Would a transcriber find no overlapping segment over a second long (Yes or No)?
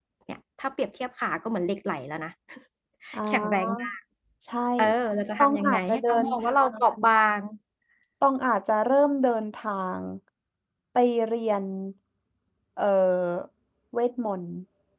No